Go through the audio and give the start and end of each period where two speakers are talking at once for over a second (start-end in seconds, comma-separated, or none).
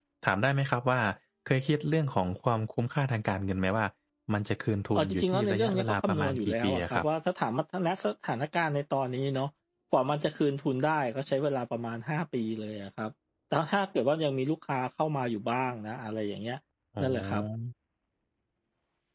5.0-7.0